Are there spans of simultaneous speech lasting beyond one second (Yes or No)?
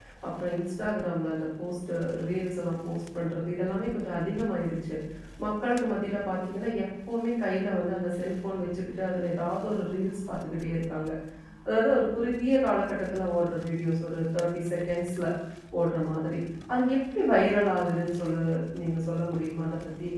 No